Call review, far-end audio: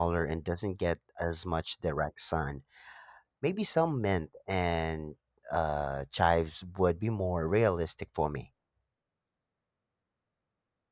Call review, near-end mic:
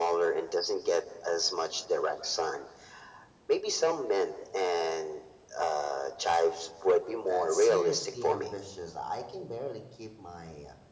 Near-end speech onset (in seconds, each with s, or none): 7.3 s